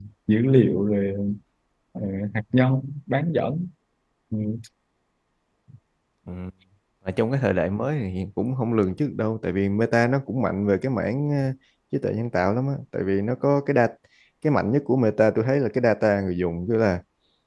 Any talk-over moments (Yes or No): No